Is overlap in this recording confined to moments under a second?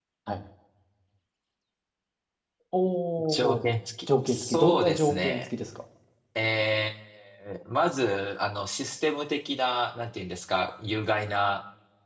No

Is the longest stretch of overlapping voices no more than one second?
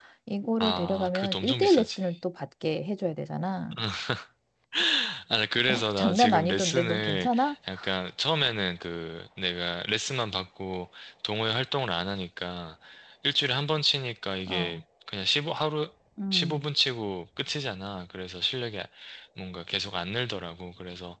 No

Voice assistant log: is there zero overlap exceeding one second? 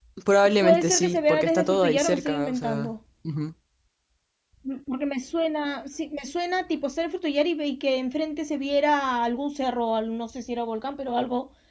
No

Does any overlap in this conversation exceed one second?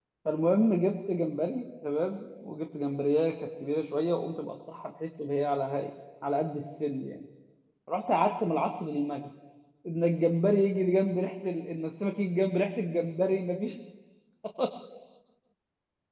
No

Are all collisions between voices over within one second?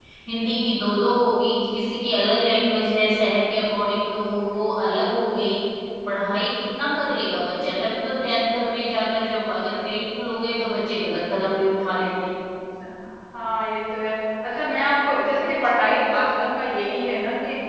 Yes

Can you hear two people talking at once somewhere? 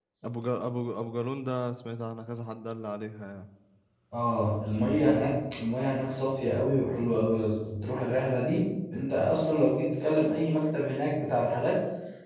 No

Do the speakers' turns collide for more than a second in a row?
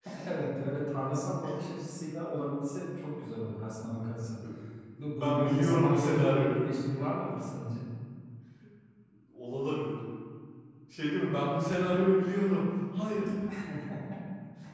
Yes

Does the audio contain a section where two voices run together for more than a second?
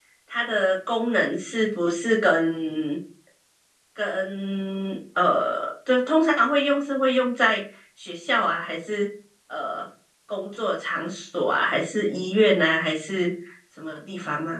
No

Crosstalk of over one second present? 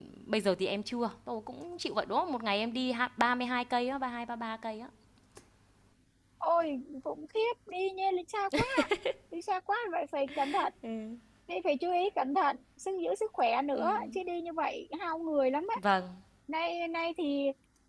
No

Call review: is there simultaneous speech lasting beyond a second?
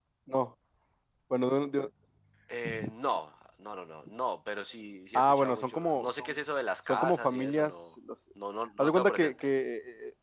Yes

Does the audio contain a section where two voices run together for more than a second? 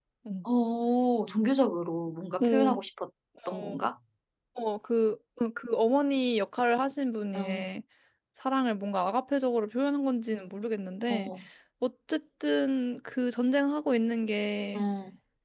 No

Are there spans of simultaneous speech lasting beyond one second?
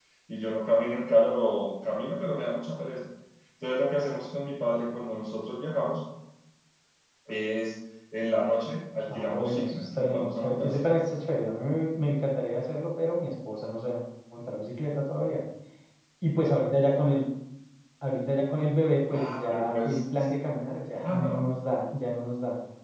Yes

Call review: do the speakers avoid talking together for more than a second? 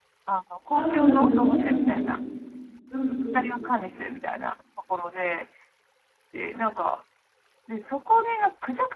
No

